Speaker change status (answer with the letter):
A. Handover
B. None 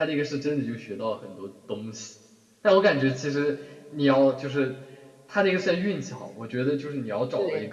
B